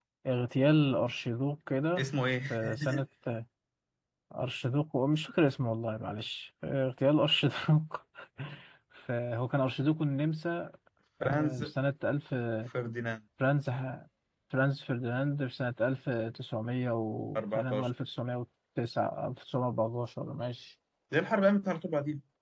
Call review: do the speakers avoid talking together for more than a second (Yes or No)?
Yes